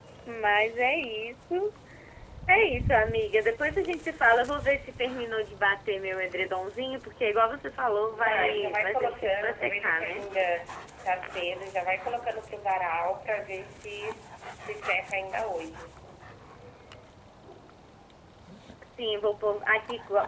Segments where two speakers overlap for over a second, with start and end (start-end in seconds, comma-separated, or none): 8.1-10.2